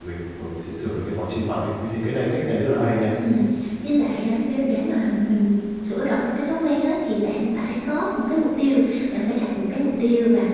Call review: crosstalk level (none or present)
none